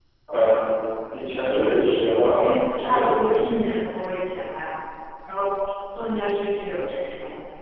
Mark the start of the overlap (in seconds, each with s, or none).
1.4 s